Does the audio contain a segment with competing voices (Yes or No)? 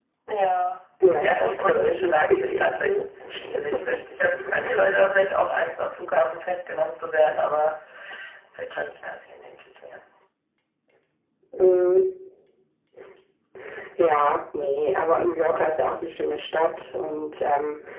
Yes